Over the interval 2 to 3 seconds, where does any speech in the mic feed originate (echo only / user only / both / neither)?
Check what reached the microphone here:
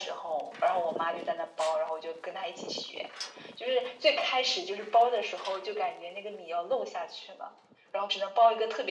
echo only